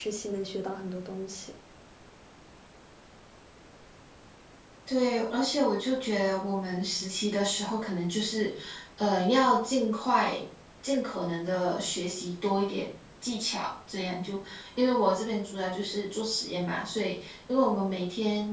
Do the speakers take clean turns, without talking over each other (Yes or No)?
Yes